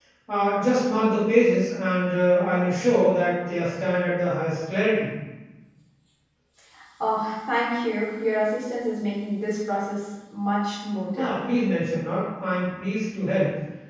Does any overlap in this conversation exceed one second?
No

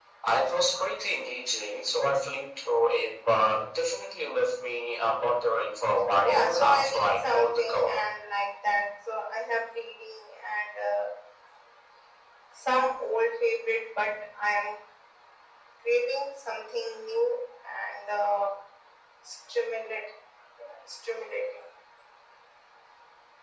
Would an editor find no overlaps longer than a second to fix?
No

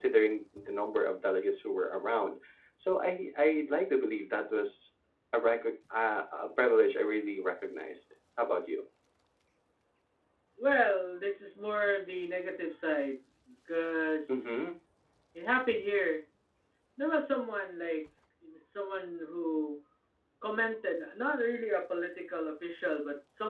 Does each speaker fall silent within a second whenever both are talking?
Yes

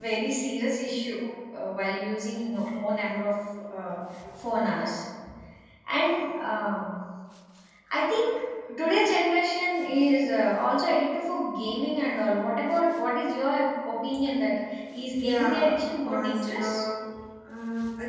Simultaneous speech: Yes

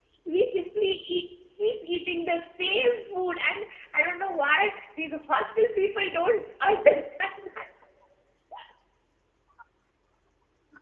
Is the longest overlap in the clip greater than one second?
No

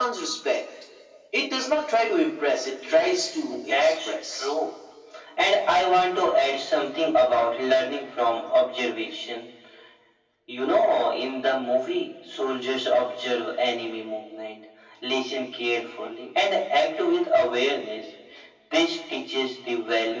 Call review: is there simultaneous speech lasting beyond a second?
Yes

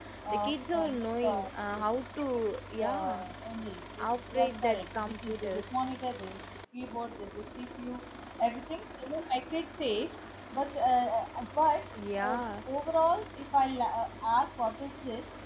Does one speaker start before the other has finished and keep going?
Yes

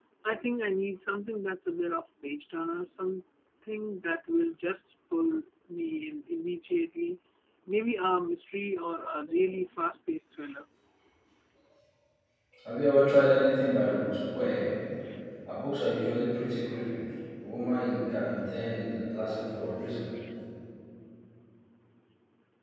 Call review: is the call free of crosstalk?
Yes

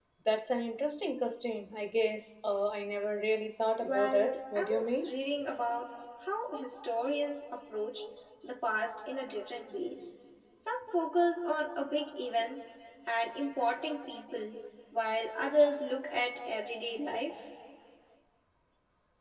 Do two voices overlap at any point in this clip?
Yes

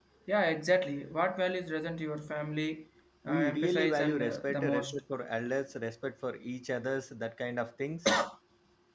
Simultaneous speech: Yes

